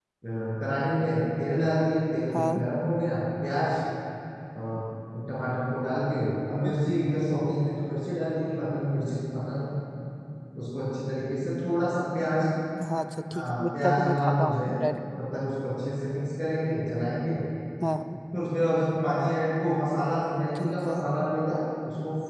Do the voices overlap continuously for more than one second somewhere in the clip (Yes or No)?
Yes